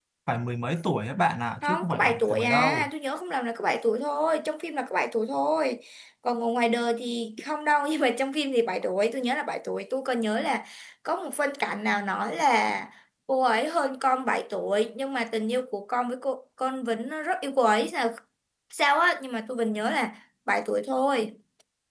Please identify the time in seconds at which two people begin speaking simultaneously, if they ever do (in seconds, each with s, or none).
1.6 s